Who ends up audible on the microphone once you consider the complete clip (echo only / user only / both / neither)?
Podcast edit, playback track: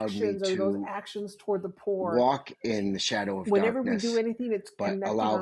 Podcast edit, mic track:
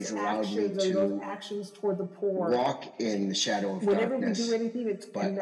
echo only